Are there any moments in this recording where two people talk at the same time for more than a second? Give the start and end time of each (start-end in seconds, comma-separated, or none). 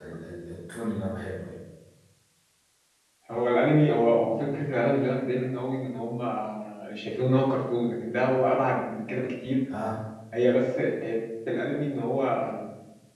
none